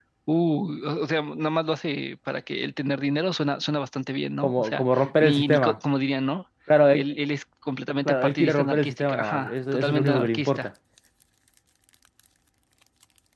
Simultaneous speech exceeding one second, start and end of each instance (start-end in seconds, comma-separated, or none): 4.4-5.8, 8.1-10.7